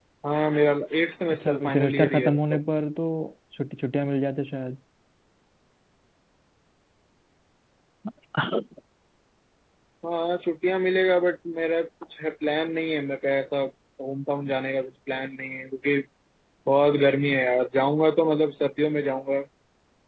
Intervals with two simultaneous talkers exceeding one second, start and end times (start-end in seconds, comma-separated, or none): 1.3-2.6